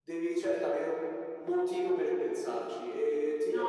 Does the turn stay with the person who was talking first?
Yes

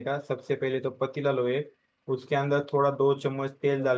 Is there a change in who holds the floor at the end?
No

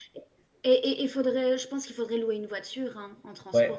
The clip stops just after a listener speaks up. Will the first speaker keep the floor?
No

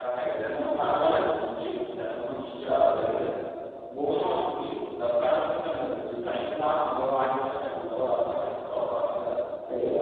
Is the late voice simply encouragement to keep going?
No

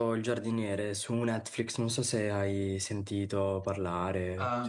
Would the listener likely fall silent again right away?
No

